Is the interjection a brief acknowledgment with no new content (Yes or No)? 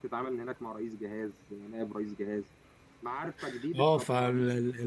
No